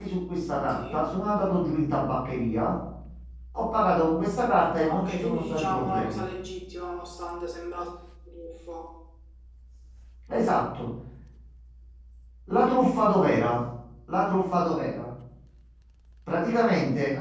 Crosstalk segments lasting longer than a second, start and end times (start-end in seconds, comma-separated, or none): 4.8-6.2